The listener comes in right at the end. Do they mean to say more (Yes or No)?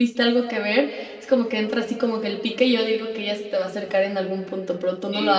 Yes